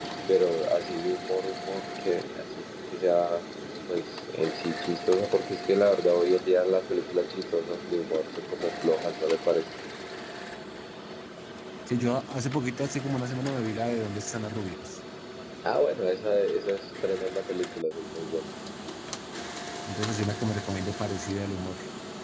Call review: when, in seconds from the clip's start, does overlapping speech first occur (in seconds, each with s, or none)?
none